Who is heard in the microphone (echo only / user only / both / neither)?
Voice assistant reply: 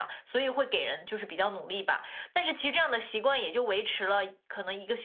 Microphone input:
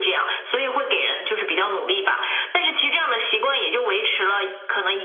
echo only